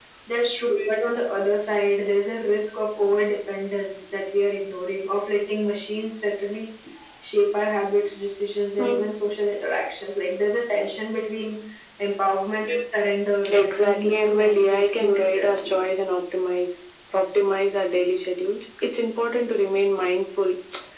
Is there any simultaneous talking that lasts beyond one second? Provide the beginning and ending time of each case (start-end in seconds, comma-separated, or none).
13.5-15.8